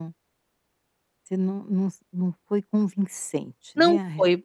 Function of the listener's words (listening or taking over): taking over